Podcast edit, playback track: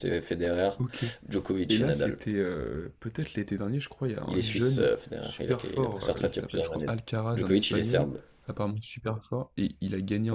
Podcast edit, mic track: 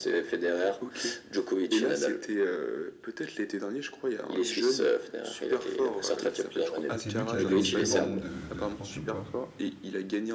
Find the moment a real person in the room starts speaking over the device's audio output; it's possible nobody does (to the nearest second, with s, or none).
7 s